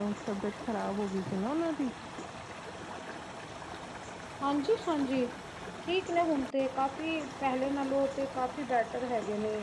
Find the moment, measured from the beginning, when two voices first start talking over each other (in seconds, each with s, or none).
none